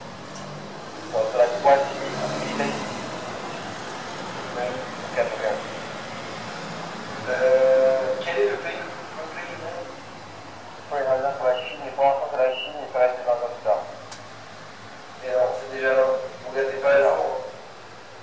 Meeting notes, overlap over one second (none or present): none